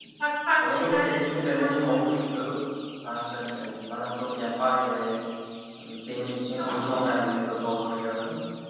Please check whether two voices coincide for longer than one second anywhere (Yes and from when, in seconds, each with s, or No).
Yes, from 0.6 s